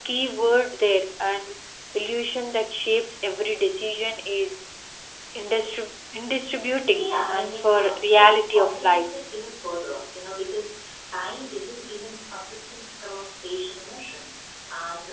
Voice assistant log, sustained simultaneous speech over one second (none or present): present